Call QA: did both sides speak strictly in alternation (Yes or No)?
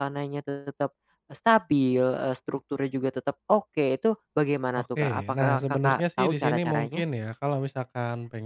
No